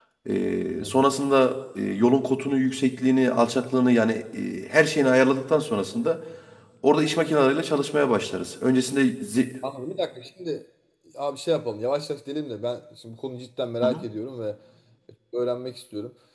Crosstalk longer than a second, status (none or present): none